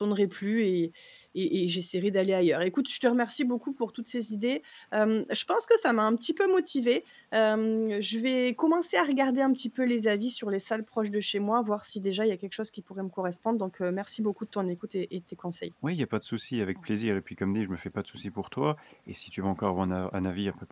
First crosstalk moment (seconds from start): none

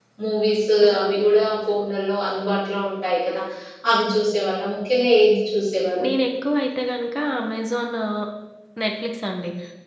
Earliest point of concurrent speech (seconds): none

